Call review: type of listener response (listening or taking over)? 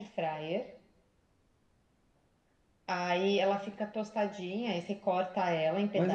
taking over